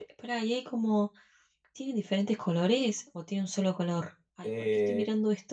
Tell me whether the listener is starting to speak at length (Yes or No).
Yes